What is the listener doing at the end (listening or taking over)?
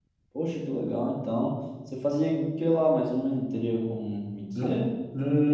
taking over